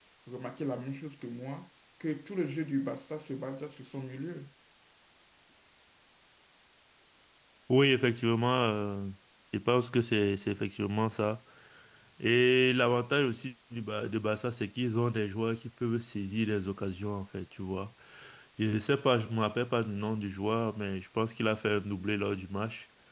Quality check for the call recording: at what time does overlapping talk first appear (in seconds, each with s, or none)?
none